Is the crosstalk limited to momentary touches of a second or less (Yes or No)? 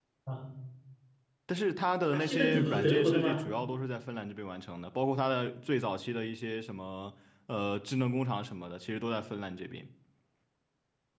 No